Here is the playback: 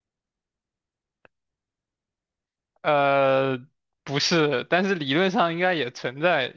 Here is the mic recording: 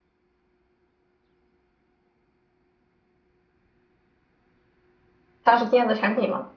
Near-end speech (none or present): present